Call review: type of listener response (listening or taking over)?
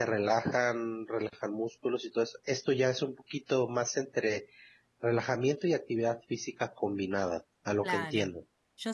taking over